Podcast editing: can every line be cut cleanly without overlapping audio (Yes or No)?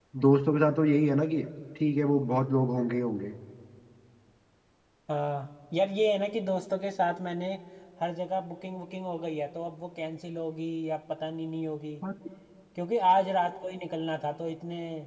Yes